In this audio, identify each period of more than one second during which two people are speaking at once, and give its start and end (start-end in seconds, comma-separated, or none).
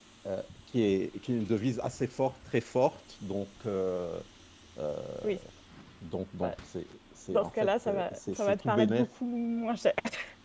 7.3-9.1